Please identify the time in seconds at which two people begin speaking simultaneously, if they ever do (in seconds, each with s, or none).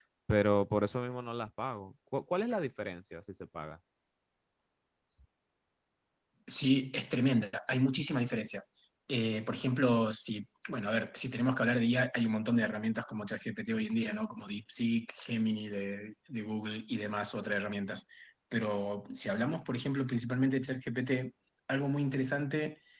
none